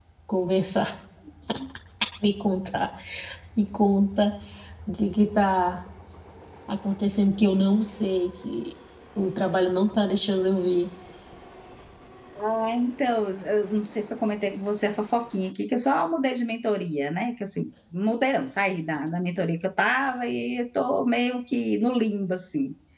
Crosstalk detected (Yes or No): No